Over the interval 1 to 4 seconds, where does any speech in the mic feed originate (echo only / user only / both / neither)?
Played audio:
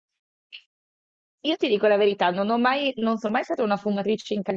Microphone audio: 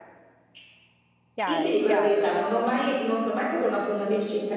both